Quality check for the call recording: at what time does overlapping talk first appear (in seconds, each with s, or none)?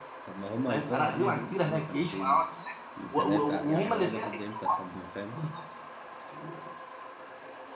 0.7 s